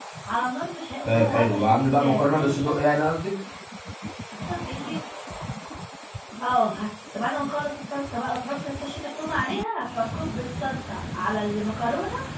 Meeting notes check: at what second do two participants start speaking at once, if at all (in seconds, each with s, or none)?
1.0 s